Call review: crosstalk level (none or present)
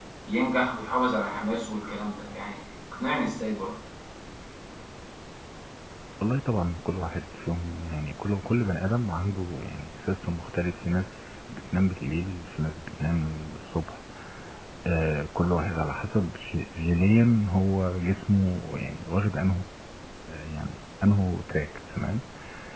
none